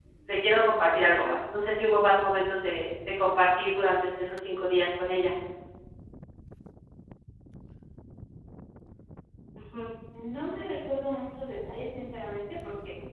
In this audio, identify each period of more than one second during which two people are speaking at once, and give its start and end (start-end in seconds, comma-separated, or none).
none